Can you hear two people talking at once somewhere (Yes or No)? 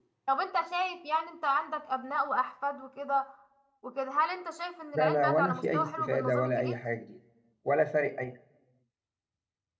Yes